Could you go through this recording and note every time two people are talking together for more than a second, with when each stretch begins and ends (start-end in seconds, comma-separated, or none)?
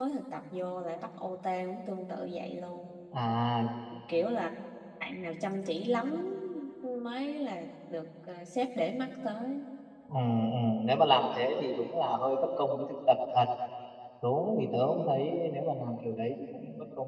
none